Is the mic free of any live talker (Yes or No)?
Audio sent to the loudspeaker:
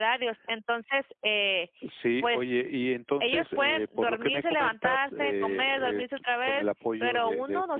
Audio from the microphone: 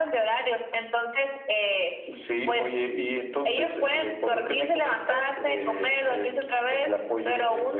Yes